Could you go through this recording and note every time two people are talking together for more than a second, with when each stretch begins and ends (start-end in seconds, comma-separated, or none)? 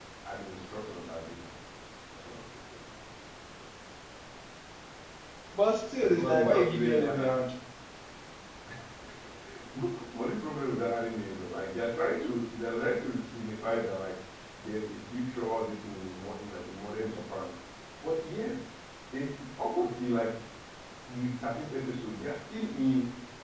6.1-7.3